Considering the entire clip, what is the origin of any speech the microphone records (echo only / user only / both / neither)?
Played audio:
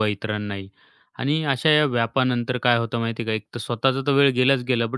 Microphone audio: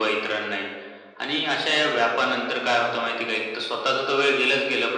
echo only